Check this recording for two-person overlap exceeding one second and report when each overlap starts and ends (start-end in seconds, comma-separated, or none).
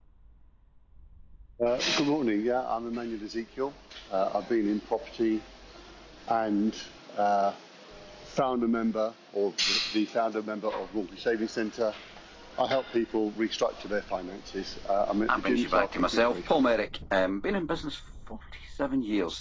15.3-16.5